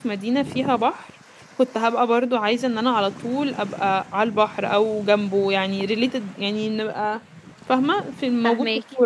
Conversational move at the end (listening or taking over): taking over